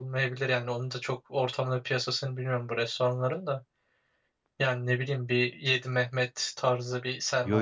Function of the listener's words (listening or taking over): taking over